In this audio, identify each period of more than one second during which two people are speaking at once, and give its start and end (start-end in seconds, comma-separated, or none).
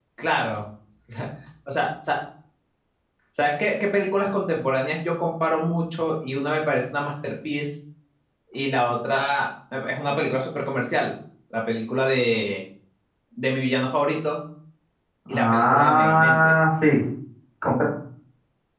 15.3-16.6